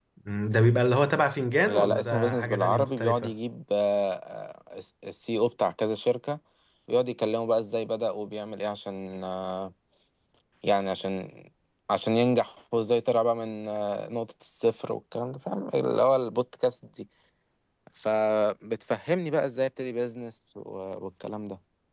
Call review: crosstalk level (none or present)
present